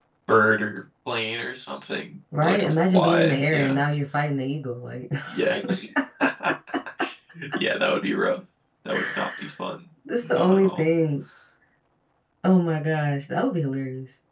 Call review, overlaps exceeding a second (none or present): present